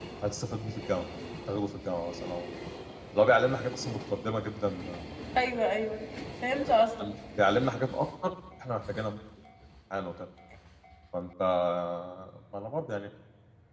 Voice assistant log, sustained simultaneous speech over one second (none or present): none